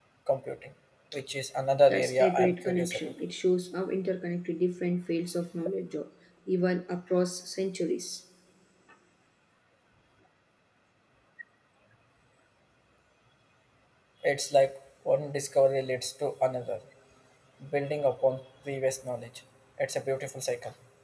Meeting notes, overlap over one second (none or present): present